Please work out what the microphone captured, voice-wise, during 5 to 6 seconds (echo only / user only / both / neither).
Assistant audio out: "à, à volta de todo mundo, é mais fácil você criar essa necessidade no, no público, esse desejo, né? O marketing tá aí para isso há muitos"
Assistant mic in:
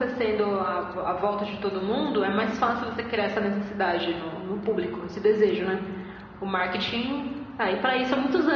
echo only